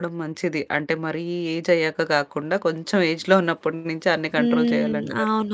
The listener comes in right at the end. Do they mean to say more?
Yes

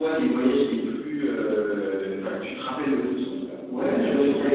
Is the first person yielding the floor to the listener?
Yes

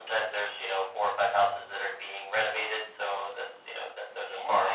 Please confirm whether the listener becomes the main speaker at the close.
No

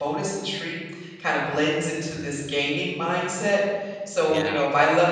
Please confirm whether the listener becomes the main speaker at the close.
No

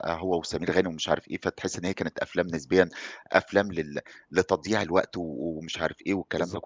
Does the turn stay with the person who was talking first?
Yes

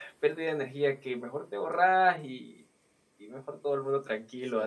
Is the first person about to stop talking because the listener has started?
Yes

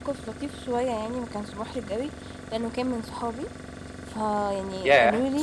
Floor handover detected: Yes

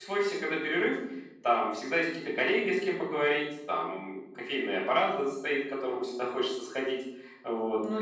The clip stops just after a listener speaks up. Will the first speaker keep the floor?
Yes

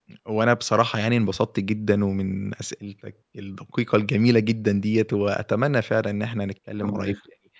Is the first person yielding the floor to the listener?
No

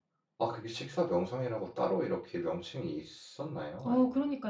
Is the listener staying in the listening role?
No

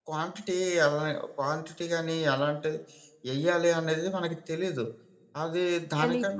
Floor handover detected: No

